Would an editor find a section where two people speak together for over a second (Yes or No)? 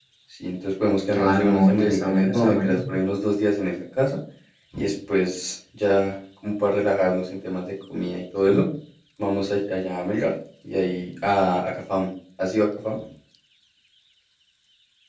Yes